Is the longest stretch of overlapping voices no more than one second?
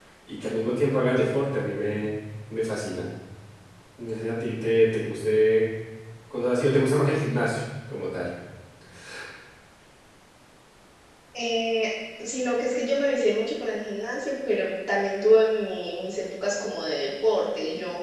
Yes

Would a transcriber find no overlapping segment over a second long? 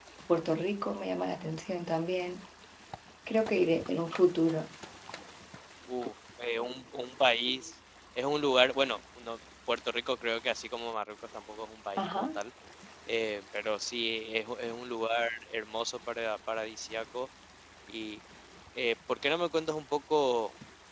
Yes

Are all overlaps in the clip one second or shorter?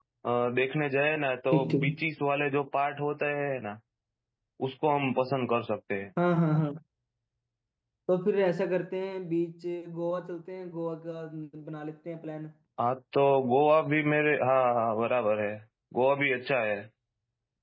Yes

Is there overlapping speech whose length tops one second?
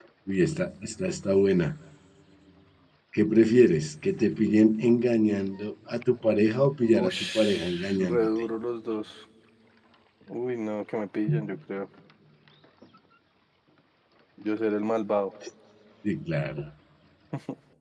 Yes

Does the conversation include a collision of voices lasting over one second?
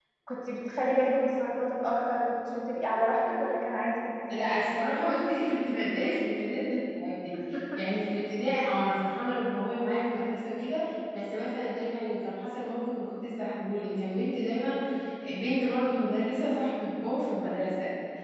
No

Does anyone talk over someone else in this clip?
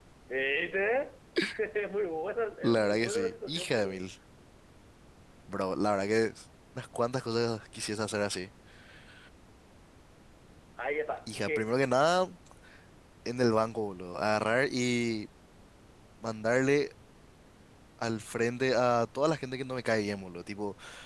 Yes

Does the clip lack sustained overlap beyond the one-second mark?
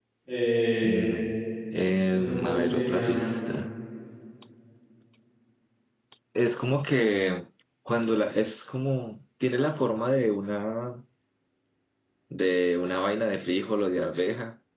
No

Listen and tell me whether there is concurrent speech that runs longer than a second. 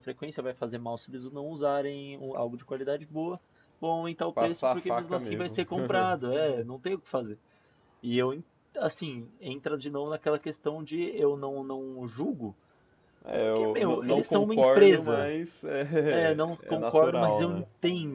Yes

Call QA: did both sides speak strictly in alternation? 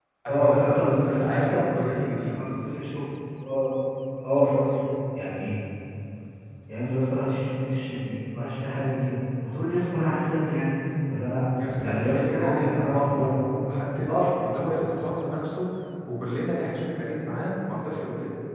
No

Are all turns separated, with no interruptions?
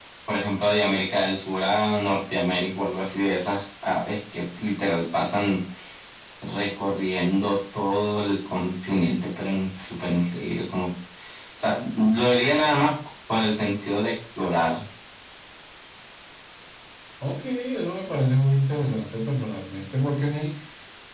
Yes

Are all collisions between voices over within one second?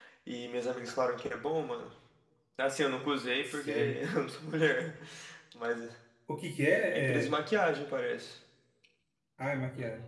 Yes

